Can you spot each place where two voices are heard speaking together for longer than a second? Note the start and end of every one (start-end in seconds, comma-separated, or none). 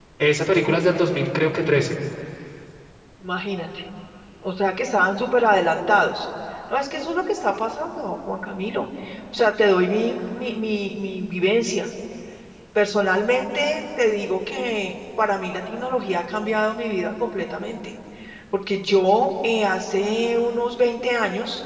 none